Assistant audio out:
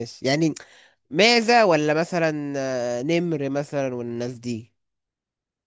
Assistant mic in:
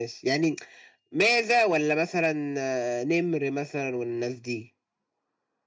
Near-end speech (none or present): none